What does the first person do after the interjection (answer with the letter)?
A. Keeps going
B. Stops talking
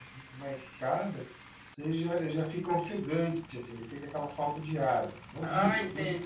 B